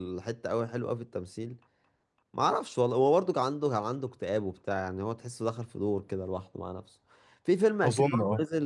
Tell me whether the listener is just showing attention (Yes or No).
Yes